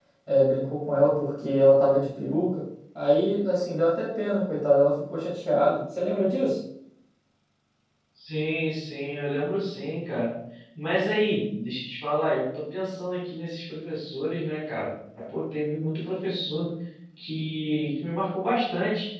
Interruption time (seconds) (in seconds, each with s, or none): none